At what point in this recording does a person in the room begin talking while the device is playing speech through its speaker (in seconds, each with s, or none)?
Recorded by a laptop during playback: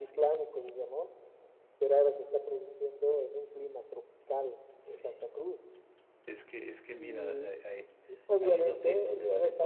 none